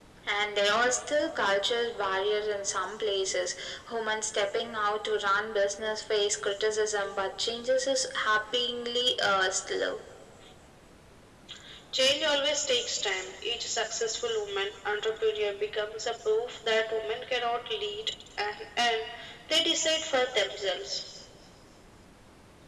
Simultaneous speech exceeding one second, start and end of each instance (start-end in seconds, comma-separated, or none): none